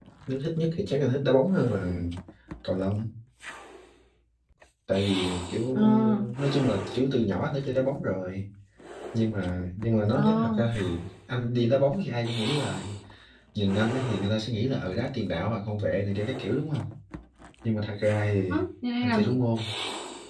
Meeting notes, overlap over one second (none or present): none